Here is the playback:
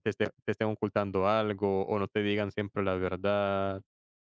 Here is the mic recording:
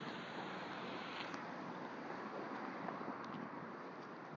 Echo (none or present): none